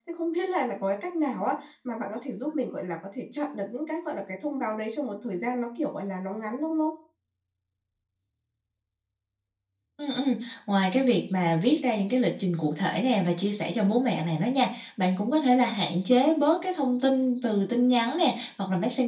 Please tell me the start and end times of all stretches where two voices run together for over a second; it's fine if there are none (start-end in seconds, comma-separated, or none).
none